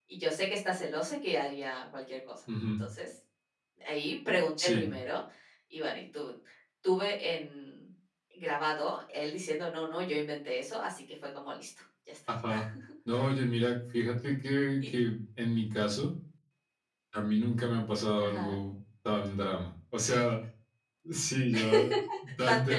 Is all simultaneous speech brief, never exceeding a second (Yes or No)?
Yes